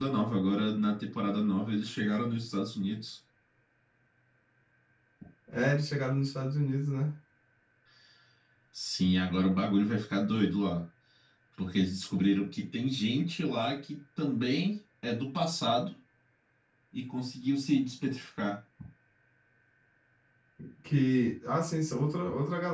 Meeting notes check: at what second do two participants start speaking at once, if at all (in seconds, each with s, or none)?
none